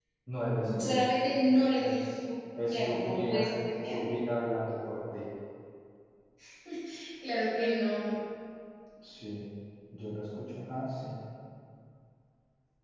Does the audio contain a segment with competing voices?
Yes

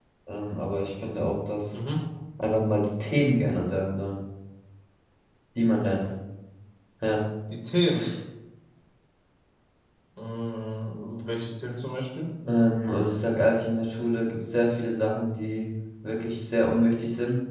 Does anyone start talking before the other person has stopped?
No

